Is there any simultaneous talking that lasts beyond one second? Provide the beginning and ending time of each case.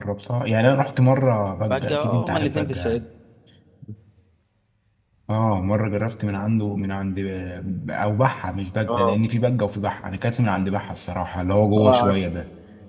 1.7-3.0

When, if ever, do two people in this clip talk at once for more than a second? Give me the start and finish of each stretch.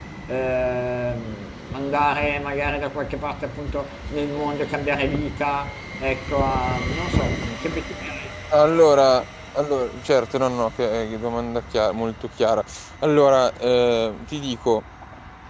none

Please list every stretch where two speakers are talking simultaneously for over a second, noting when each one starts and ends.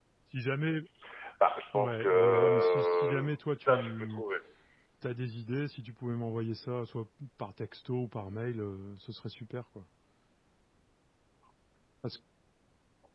1.7-4.2

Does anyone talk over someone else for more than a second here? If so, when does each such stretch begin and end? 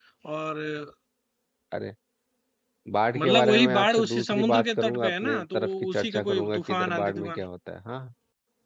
3.2-7.4

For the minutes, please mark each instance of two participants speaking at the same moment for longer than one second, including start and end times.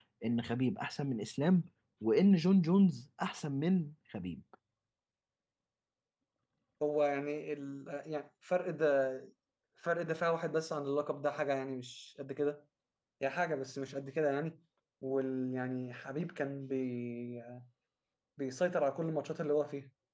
none

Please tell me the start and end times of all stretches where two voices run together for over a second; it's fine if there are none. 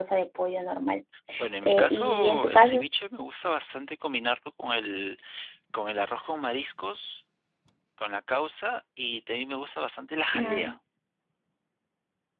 1.6-2.8

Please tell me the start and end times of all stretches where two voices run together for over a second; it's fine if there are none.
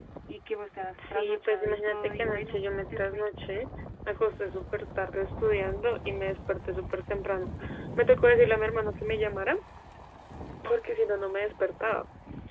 1.0-3.2

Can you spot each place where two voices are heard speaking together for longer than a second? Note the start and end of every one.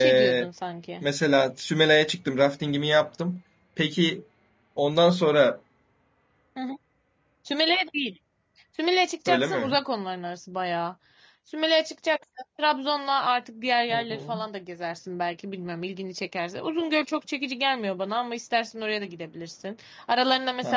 none

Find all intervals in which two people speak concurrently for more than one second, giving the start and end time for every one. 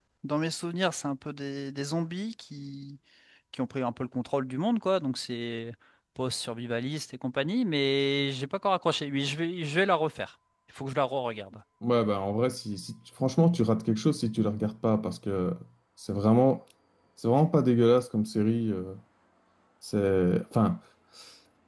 none

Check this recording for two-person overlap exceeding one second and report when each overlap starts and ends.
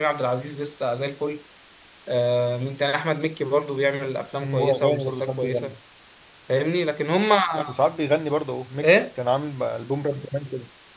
4.4-5.7

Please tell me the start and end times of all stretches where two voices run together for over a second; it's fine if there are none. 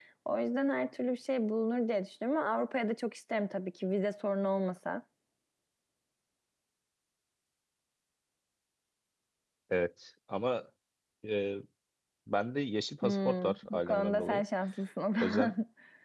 13.0-14.4

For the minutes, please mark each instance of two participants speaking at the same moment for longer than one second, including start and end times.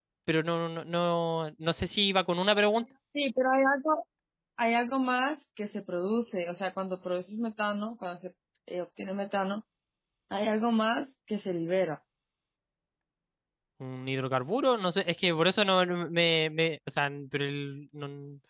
none

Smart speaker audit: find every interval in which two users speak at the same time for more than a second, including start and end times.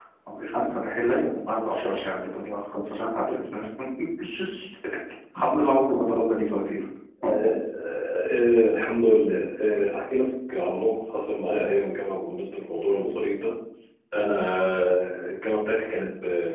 none

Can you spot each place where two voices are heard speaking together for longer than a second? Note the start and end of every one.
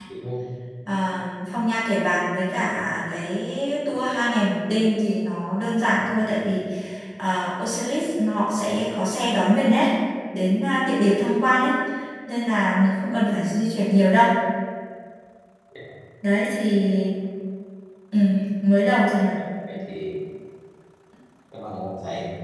none

